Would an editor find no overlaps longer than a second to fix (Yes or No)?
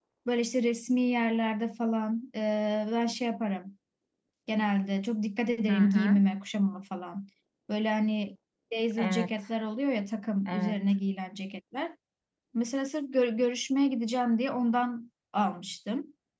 Yes